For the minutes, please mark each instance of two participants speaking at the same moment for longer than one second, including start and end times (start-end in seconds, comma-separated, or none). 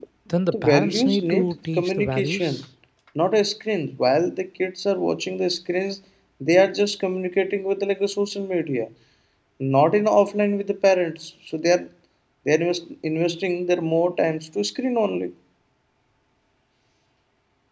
0.5-2.6